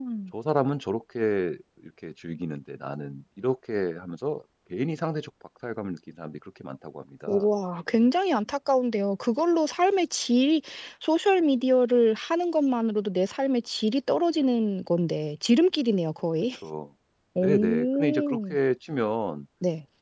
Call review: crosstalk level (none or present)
present